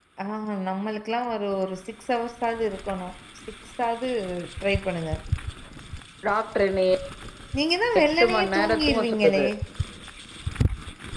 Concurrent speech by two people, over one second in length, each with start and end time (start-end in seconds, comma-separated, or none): 8.0-9.5